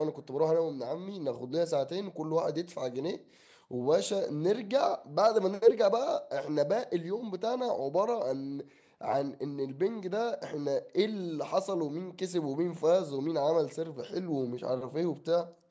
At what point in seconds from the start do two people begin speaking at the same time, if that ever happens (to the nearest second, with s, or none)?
none